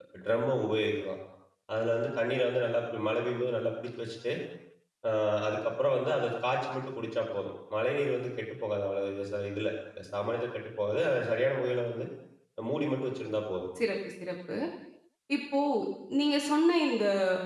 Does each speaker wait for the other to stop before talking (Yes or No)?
Yes